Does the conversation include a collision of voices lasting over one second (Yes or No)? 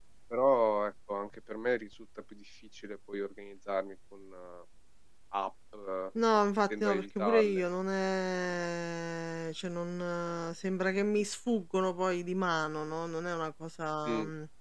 Yes